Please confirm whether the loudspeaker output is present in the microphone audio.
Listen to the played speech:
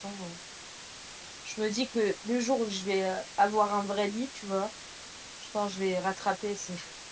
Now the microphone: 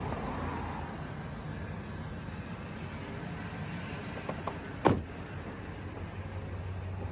No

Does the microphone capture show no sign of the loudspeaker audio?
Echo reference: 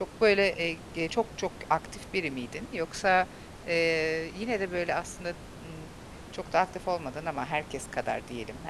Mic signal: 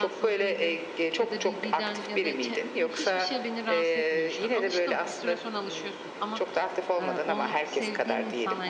No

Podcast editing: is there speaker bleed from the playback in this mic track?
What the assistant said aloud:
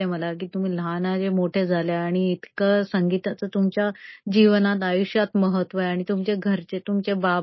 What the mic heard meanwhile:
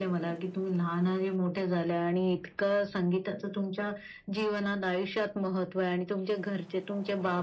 Yes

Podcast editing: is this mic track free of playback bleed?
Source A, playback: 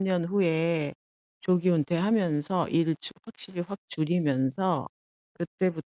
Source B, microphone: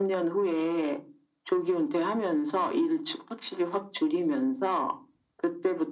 No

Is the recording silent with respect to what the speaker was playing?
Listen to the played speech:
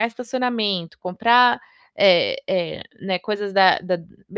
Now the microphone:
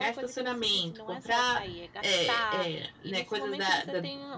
No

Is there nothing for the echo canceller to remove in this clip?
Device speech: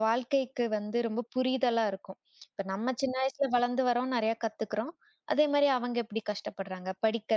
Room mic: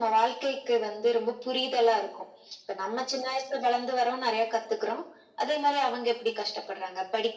No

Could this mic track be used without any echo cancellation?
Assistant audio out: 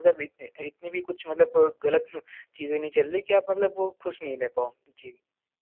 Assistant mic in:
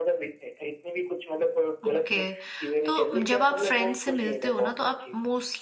No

